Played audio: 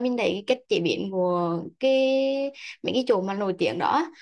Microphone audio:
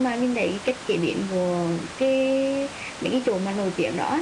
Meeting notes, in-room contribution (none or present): none